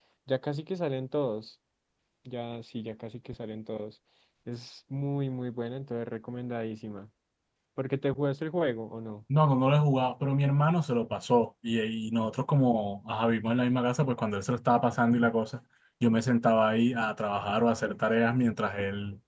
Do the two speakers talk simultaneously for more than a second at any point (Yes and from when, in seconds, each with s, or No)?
No